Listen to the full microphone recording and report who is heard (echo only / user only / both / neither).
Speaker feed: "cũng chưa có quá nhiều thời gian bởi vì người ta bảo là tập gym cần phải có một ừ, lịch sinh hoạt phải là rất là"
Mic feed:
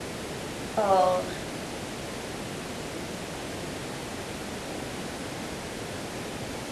user only